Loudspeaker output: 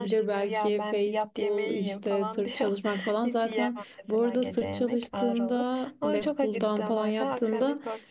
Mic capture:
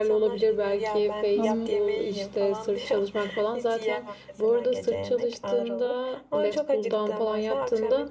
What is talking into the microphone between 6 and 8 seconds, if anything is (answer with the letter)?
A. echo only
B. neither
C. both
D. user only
A